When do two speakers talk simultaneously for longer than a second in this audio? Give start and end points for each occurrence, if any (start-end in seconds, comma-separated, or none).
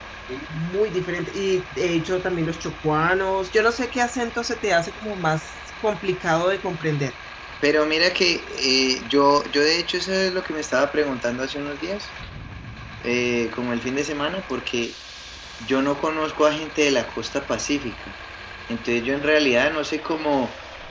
none